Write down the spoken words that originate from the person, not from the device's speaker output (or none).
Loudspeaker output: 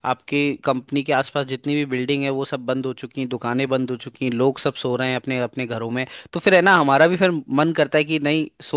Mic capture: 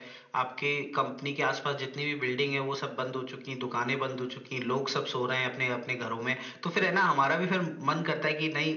none